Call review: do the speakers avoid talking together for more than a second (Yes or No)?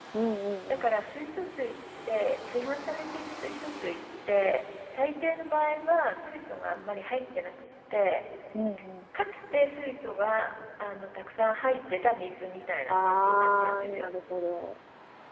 No